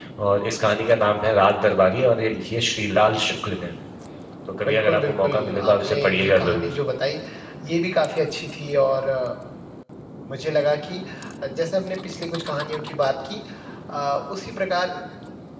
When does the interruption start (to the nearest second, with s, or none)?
5 s